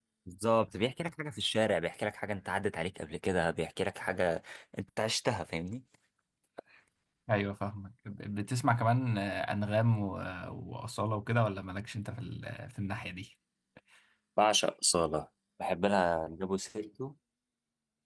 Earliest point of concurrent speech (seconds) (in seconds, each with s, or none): none